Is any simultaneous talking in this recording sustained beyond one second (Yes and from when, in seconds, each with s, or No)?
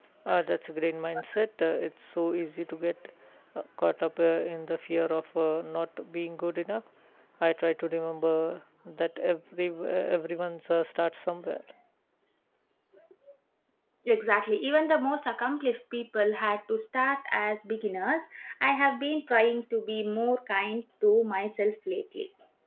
No